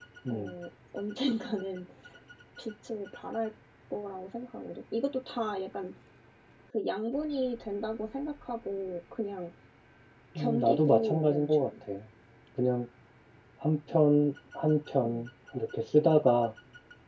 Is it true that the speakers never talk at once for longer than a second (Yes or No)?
No